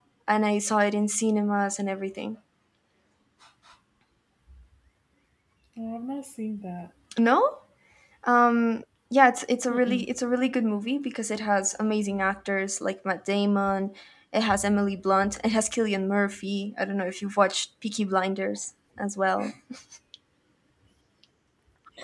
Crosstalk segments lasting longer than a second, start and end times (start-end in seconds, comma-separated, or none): none